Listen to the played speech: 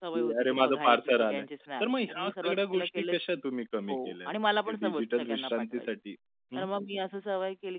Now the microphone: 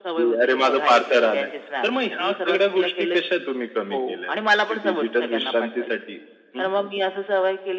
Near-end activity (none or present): none